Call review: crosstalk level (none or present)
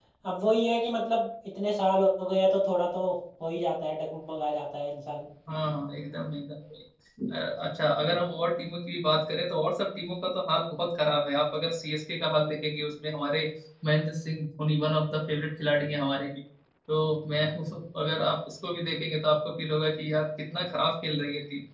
none